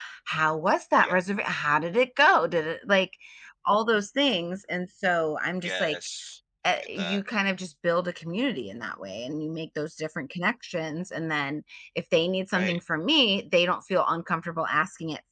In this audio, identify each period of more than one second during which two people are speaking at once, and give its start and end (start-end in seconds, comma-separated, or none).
none